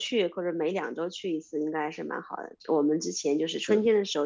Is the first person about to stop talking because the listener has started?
No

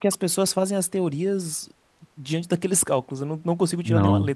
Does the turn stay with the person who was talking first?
No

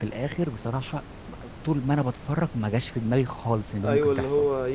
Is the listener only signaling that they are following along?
No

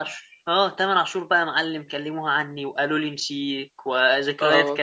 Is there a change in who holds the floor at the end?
No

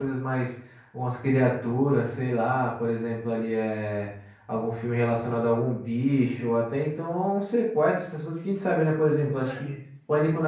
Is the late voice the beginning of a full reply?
No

